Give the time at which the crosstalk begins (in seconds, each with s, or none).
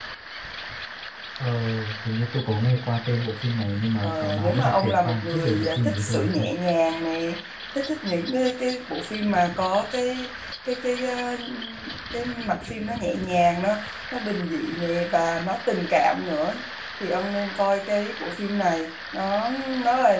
4.0 s